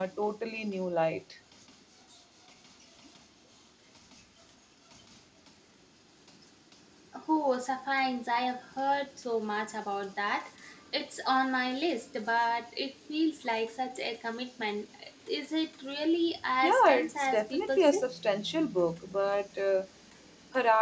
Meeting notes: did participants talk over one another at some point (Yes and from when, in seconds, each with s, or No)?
Yes, from 16.6 s